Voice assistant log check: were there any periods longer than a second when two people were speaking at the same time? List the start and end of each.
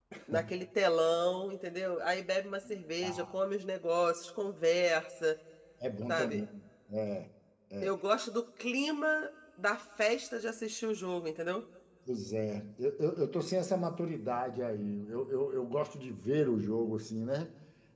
none

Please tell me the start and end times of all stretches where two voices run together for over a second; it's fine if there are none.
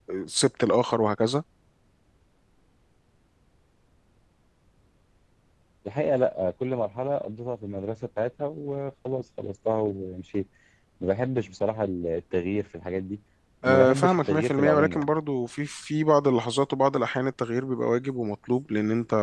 13.6-15.1

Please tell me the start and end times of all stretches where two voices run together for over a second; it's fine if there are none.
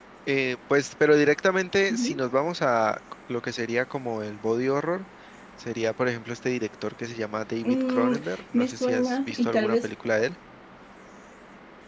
8.5-9.9

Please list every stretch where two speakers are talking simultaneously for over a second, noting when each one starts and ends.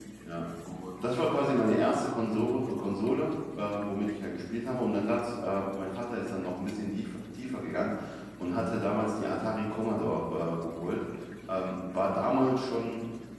none

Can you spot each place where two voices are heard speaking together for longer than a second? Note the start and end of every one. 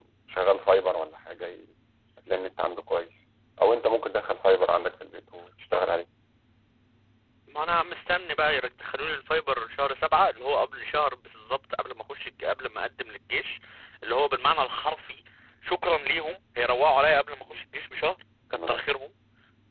none

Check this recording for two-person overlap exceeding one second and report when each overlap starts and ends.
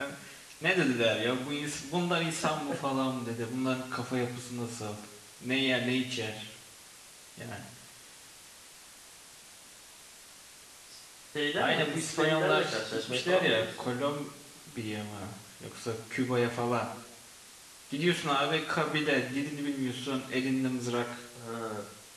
11.5-13.8

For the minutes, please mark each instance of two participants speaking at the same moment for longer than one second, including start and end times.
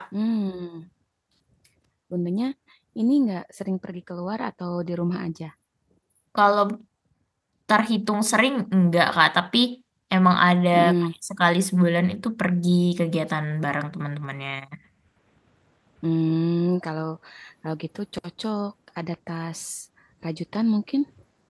none

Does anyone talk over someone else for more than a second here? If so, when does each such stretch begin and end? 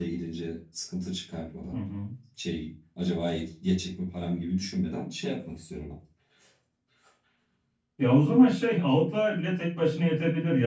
none

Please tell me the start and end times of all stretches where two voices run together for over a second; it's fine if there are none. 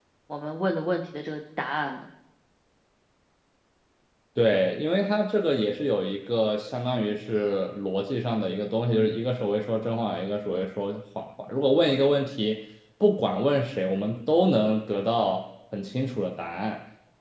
none

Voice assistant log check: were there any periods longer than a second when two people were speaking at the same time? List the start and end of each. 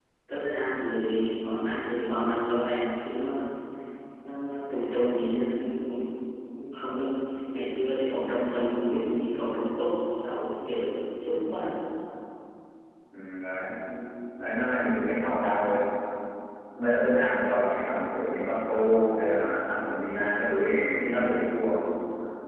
none

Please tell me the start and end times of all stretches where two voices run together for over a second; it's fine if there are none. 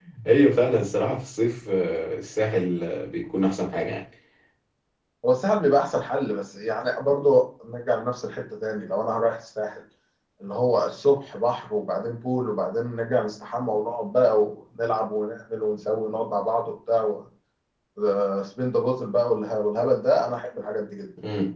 none

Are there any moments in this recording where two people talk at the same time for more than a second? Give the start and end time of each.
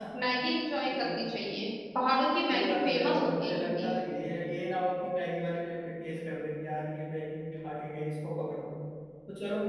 2.5-3.9

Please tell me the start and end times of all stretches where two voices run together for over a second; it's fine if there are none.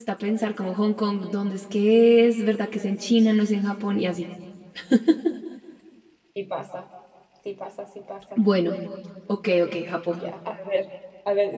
none

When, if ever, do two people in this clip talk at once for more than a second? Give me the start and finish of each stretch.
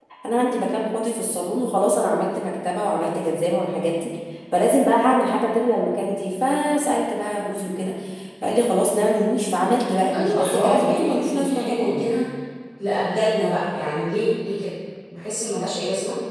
10.1-12.1

